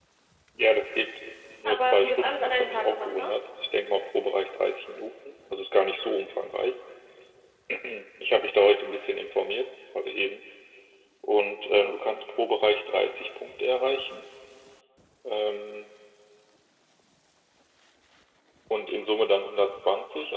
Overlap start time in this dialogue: 2 s

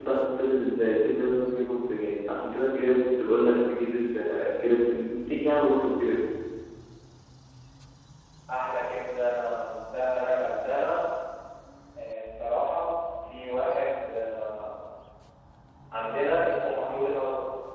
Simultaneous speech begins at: none

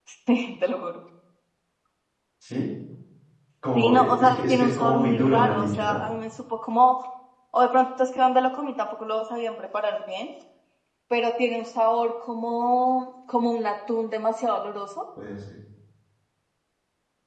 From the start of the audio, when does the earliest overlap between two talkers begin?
4 s

